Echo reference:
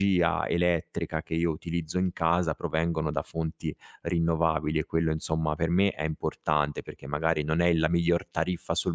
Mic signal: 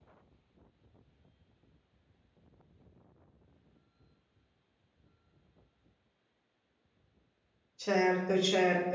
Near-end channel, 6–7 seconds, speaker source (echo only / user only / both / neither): neither